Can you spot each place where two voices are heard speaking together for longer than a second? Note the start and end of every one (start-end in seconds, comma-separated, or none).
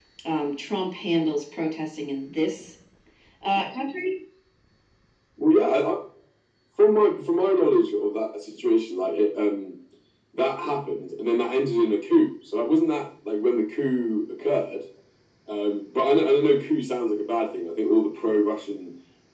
none